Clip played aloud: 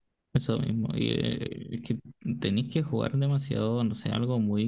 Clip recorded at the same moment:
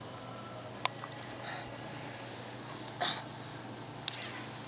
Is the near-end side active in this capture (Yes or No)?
No